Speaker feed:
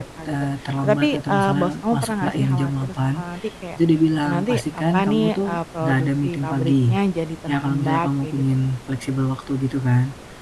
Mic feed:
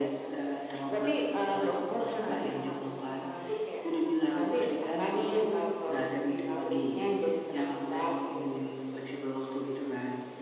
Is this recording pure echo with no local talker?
Yes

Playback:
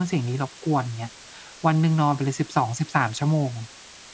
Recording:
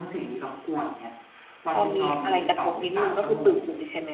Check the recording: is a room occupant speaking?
Yes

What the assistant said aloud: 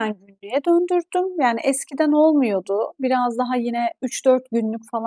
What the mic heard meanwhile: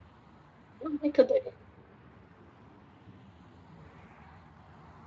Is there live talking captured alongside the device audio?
Yes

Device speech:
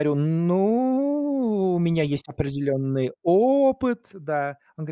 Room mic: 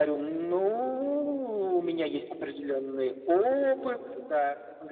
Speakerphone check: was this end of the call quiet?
Yes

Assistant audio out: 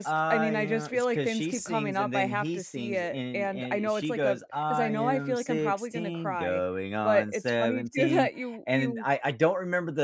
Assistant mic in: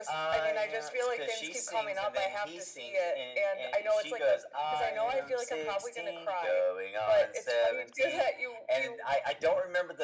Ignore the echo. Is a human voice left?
No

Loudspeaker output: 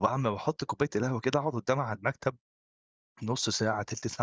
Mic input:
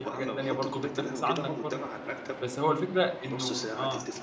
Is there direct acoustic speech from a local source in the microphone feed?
Yes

